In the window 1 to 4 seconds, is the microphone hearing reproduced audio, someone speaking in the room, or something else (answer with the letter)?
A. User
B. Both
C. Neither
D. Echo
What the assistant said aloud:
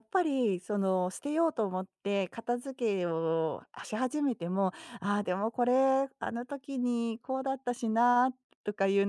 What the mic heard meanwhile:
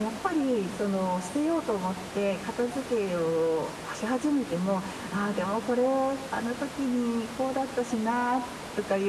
D